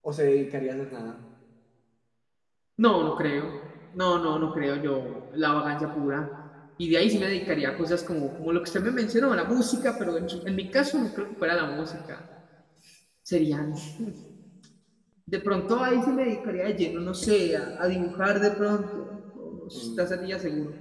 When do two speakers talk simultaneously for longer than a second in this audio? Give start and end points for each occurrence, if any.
none

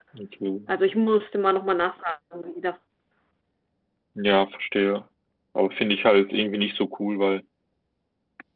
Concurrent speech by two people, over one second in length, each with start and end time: none

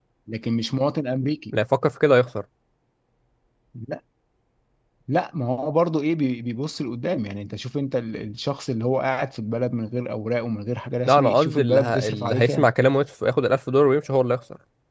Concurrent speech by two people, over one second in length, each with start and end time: 11.1-12.7

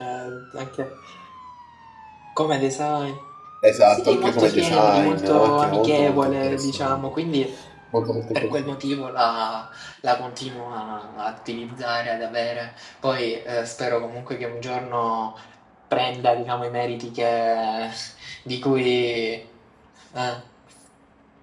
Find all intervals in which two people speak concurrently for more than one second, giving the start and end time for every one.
3.9-7.0

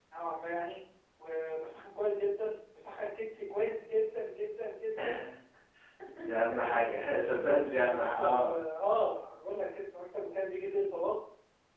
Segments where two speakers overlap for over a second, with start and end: 6.5-8.5

